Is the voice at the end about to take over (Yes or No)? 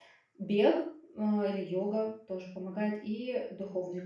Yes